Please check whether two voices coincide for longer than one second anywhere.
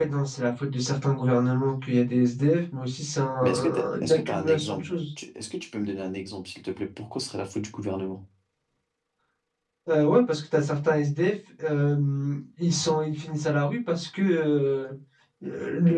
Yes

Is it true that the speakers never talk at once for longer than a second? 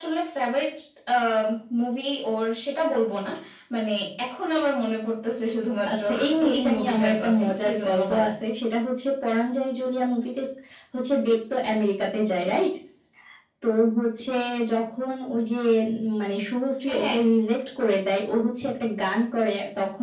No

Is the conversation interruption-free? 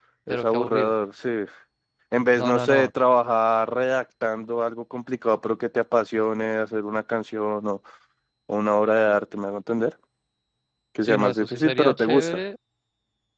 No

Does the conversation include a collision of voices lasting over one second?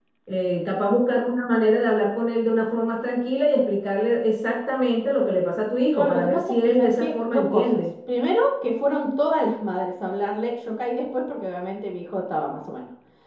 Yes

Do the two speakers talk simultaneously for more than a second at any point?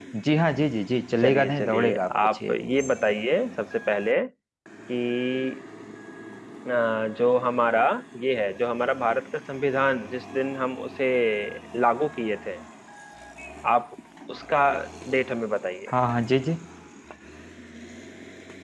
Yes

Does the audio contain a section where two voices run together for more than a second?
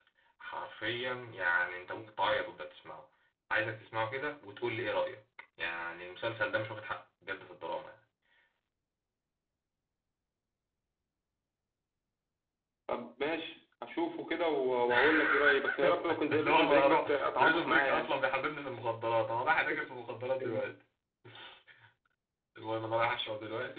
Yes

